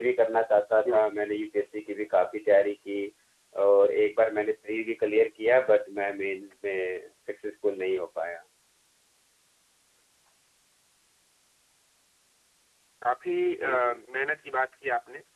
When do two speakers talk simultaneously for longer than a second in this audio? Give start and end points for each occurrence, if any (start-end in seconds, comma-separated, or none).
none